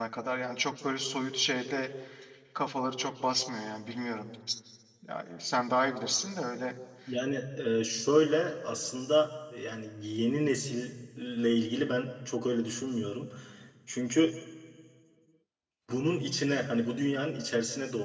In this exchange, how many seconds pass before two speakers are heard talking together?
none

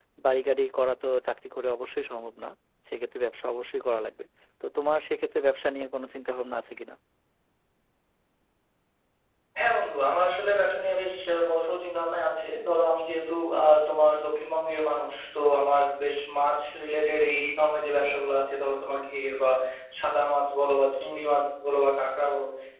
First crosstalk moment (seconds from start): none

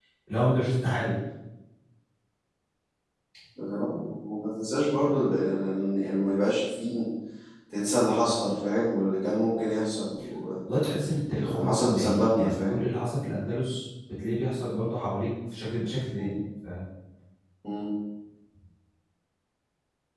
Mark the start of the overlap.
11.4 s

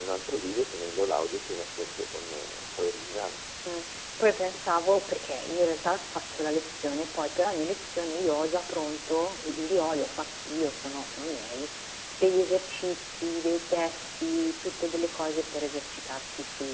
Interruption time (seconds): none

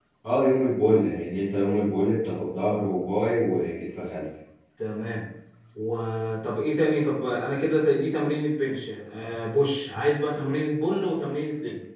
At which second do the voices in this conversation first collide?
none

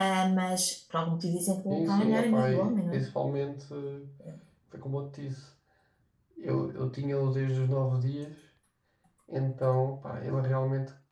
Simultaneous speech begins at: 1.7 s

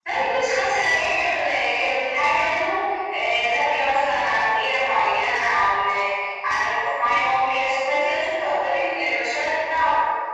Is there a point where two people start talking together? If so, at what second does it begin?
none

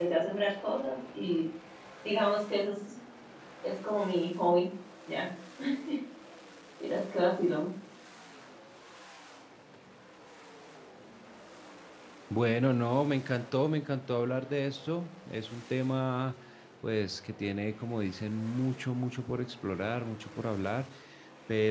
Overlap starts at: none

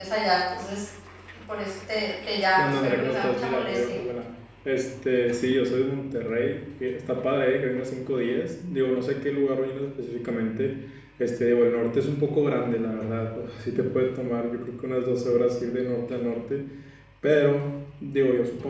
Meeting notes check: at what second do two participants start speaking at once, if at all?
2.6 s

